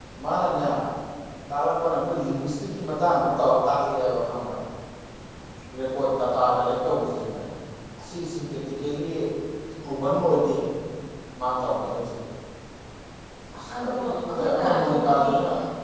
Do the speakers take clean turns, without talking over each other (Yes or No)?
No